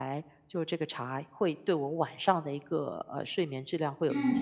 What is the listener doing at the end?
taking over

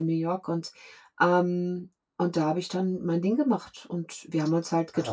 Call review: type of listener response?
listening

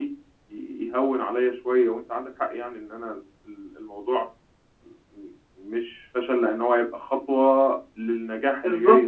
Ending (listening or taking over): taking over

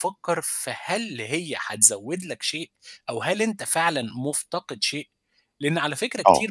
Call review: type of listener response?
listening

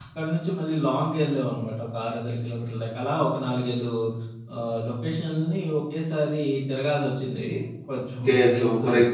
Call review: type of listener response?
taking over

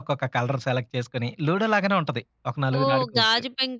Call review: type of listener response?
taking over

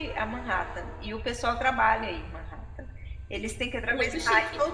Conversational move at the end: listening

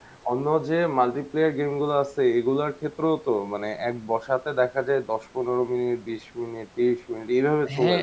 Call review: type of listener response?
taking over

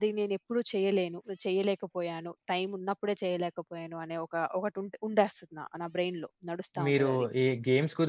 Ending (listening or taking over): taking over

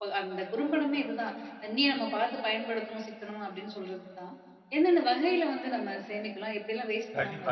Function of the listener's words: taking over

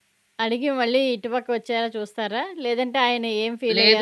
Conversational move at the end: taking over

